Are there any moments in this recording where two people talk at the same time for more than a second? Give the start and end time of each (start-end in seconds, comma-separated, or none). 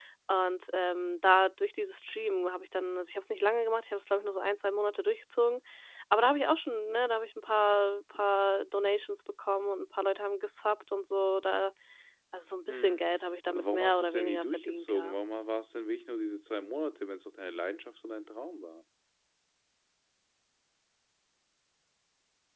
13.5-15.2